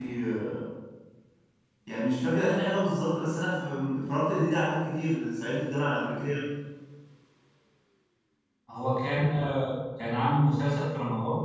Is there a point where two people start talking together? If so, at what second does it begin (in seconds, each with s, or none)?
none